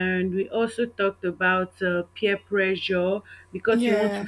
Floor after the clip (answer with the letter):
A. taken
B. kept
B